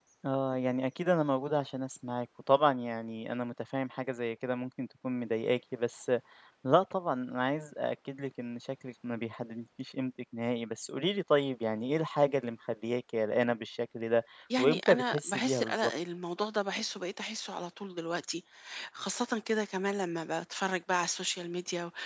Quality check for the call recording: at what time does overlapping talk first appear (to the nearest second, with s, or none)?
15 s